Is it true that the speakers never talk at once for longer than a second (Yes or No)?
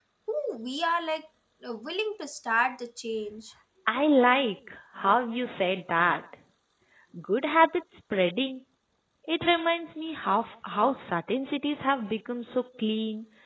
Yes